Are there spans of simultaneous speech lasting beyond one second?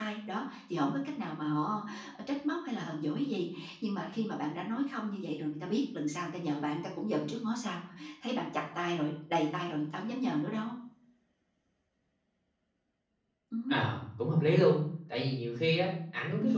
No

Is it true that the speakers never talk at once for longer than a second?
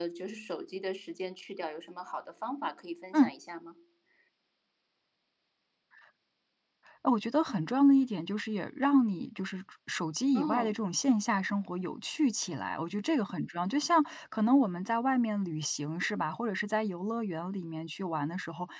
Yes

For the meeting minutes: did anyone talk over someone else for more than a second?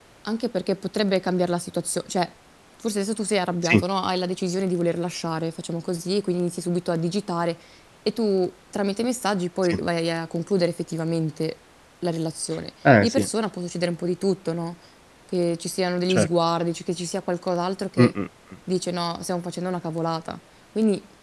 No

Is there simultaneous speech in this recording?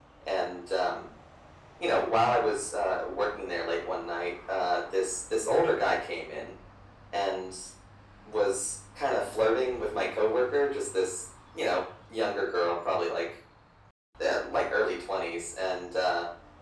No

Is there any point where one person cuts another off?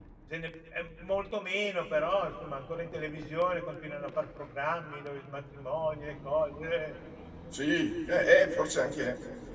No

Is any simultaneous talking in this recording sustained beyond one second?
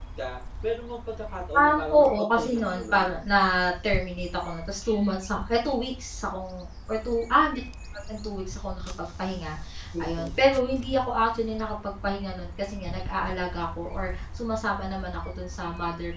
Yes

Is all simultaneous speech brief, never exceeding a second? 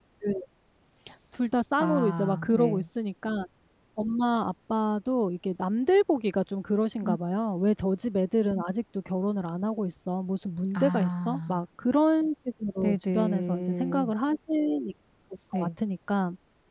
No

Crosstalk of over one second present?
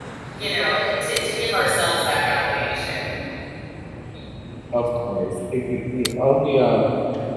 No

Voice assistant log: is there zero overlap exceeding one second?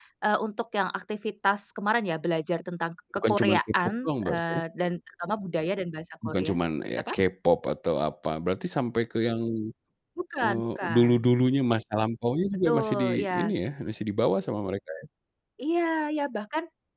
No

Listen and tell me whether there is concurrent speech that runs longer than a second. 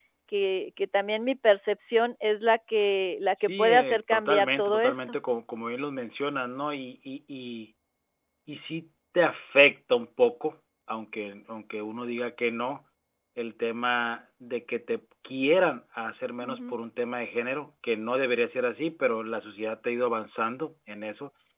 Yes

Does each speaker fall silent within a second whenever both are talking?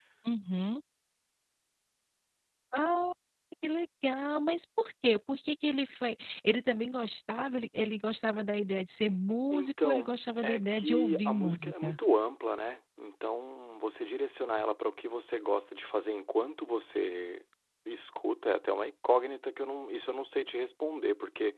No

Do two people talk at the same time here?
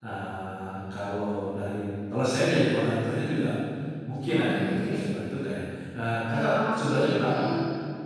Yes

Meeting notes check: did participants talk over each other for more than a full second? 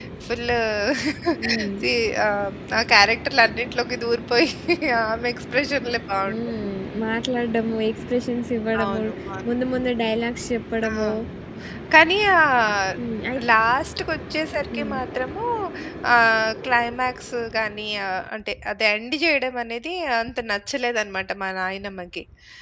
No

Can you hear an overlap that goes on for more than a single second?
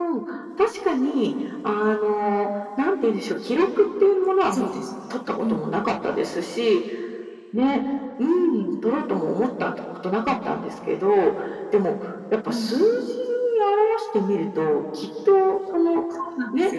No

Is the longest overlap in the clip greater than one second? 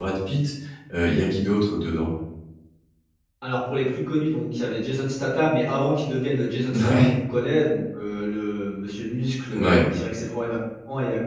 No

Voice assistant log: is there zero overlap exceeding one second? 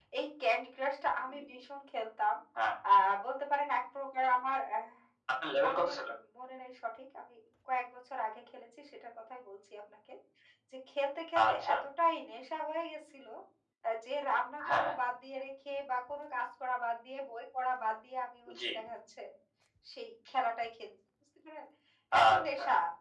Yes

